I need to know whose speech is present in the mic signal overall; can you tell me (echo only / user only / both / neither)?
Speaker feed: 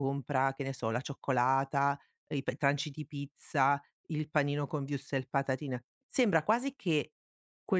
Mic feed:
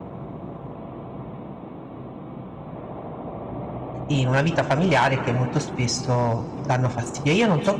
user only